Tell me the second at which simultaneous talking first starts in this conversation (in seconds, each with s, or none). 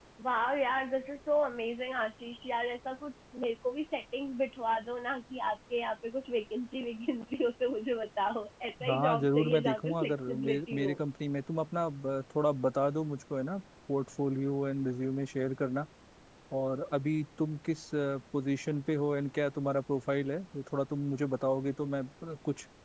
8.8 s